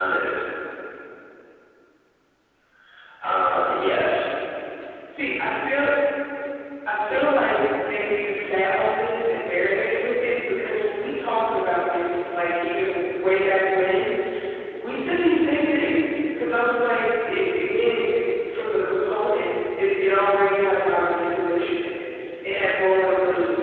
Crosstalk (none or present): none